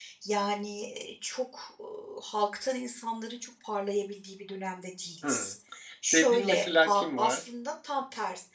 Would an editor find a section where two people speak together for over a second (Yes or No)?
Yes